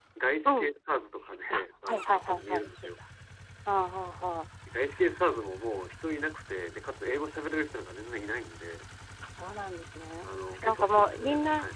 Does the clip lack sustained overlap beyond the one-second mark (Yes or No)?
No